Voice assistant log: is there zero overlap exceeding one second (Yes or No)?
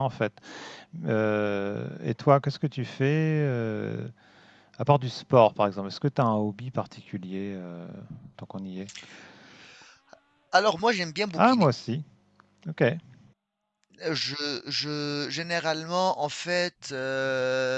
Yes